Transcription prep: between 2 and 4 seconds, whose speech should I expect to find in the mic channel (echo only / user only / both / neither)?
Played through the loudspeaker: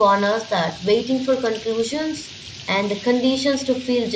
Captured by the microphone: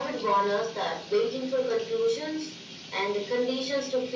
echo only